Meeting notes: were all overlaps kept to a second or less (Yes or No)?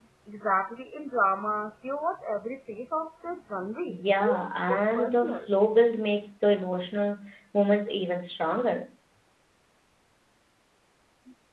No